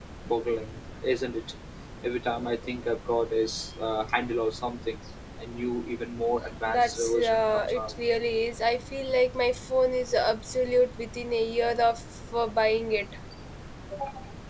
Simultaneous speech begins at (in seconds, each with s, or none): 6.7 s